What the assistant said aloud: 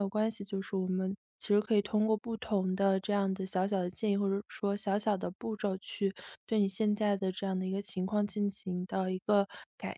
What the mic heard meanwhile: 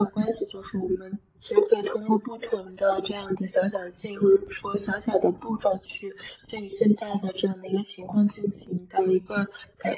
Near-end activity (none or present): none